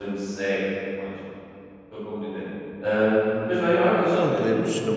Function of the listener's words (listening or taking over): taking over